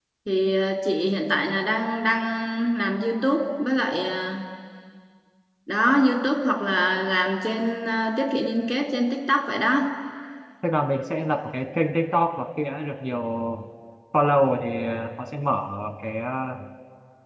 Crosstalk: none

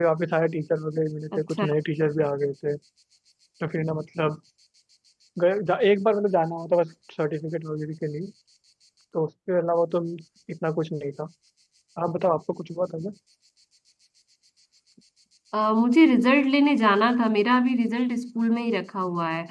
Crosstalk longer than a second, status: none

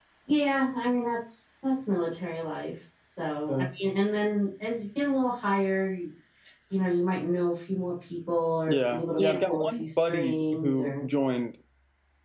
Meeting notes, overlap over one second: present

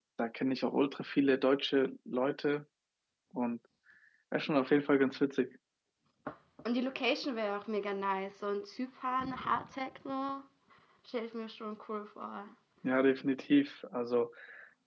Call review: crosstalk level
none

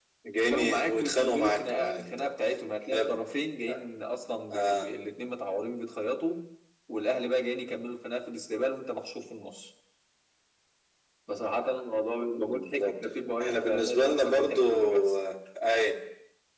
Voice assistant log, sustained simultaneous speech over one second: present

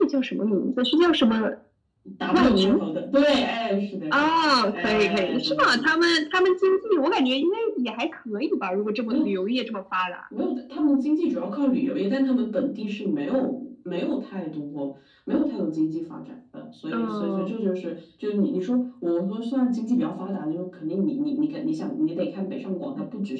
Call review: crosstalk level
present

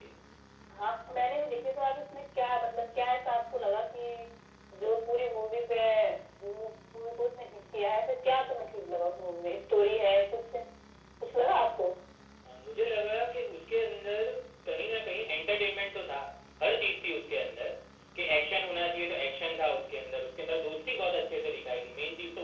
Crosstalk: none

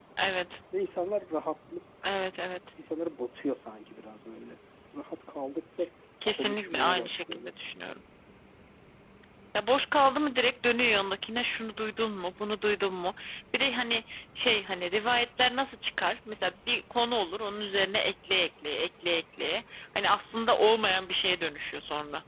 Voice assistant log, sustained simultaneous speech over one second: present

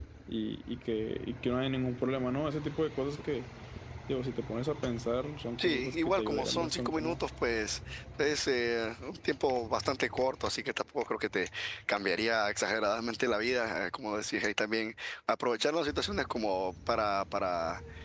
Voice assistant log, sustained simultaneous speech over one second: present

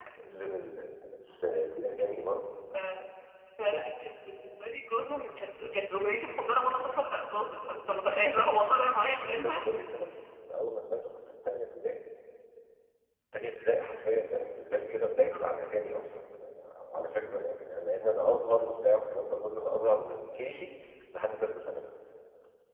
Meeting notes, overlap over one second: none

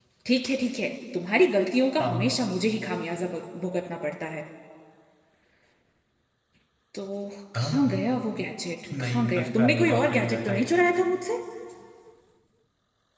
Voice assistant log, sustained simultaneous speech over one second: present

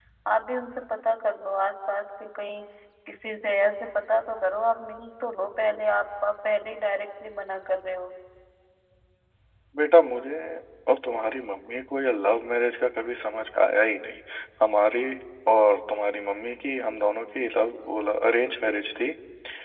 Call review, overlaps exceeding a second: none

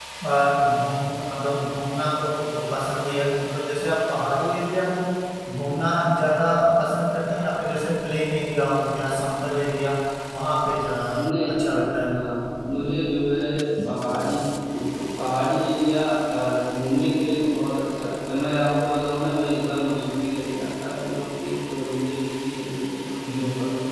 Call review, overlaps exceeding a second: none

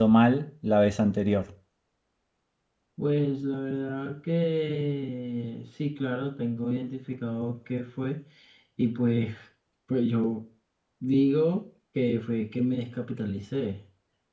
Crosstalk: none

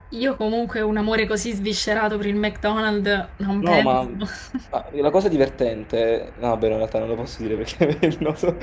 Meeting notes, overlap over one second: none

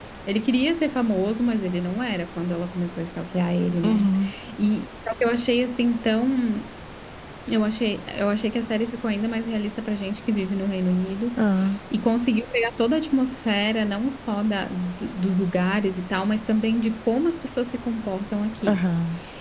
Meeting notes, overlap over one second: none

